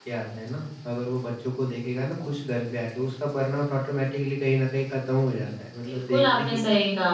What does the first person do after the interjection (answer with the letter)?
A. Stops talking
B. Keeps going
A